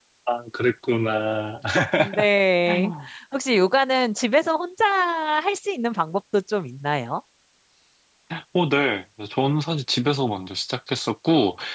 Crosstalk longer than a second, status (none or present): none